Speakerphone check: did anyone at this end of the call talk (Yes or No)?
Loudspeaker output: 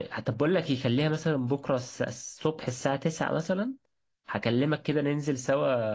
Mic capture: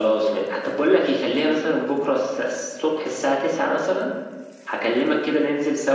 No